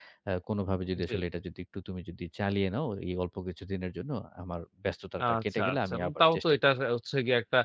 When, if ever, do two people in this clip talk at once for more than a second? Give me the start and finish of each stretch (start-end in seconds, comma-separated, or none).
5.2-6.6